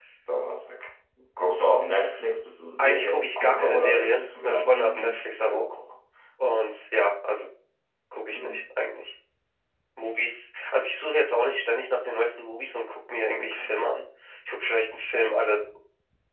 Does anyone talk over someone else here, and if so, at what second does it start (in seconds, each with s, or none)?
2.8 s